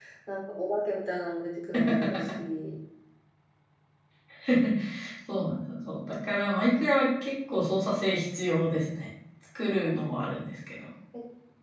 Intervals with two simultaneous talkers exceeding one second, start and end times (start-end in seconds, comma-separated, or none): none